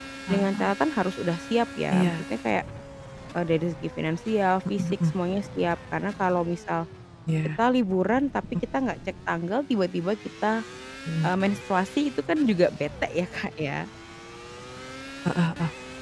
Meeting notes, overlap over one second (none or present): none